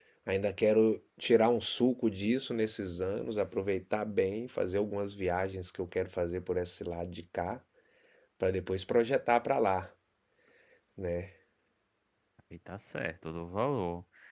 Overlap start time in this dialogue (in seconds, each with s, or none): none